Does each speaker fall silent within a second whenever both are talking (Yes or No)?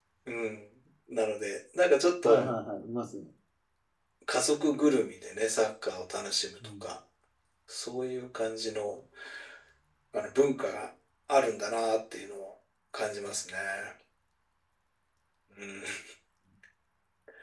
Yes